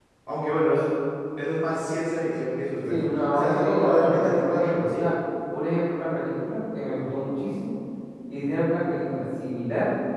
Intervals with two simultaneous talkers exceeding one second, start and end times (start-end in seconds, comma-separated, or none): 2.9-5.0